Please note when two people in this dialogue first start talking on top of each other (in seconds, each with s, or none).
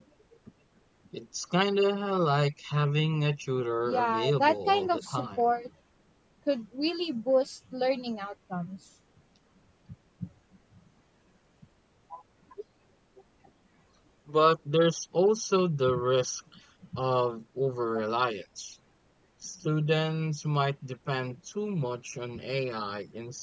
3.9 s